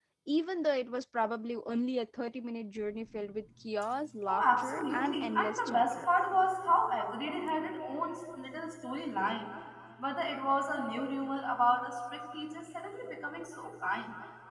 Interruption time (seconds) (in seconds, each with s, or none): 4.3 s